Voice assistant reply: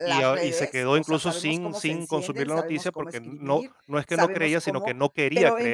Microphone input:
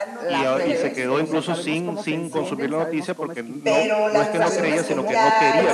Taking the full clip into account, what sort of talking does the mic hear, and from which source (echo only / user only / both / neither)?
both